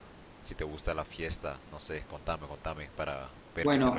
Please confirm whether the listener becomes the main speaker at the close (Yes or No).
Yes